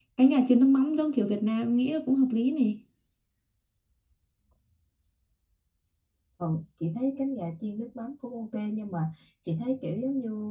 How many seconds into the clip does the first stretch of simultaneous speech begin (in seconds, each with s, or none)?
none